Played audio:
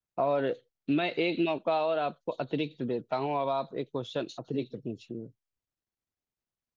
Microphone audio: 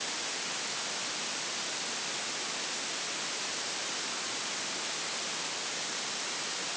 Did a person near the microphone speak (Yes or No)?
No